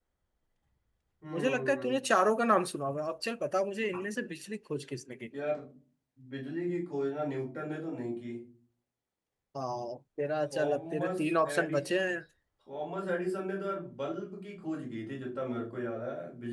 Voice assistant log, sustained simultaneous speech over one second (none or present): present